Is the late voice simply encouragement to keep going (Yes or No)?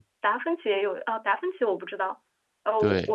Yes